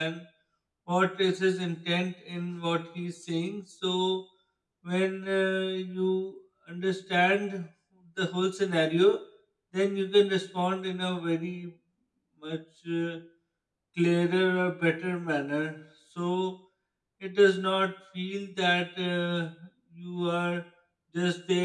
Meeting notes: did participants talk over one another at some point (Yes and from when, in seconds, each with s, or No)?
No